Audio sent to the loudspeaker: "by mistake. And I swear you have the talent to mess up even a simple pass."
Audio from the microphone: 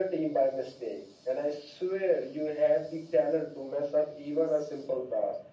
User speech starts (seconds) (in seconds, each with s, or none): none